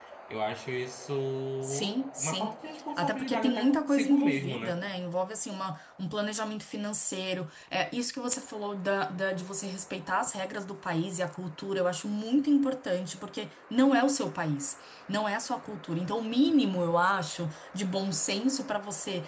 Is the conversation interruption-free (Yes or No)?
No